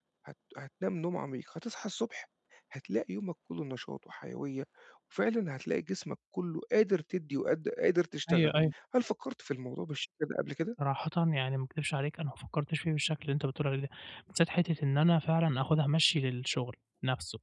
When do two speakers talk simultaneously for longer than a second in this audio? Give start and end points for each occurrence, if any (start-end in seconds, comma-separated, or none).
none